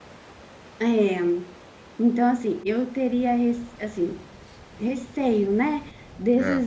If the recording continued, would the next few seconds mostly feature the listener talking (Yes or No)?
No